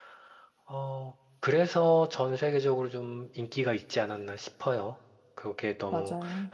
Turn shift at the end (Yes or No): No